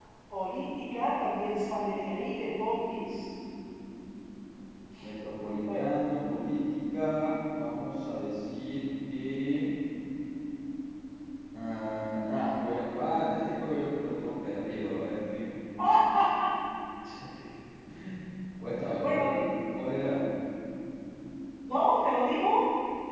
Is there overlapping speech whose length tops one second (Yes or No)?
No